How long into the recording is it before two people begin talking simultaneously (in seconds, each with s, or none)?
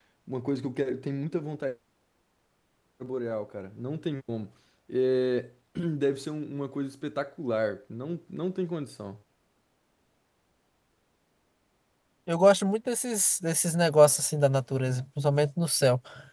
none